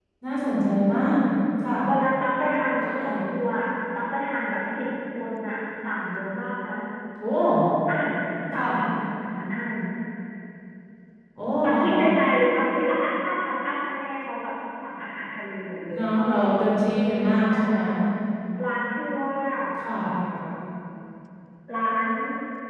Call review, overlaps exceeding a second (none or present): none